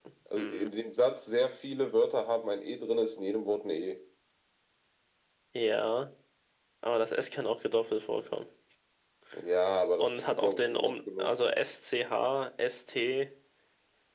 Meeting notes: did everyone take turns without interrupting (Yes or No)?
No